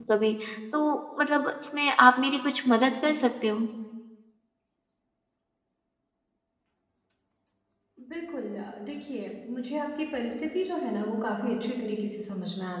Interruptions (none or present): none